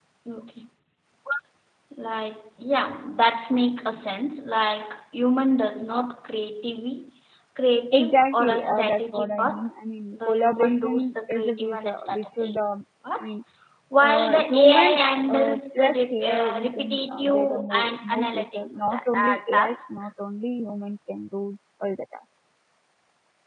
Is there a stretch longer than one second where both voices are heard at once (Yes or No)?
Yes